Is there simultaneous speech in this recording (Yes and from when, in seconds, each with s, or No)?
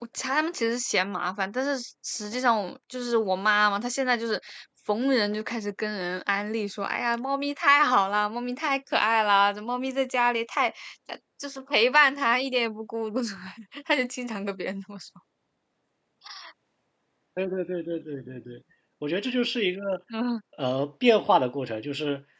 No